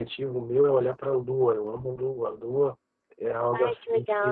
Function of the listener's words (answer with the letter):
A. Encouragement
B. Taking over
B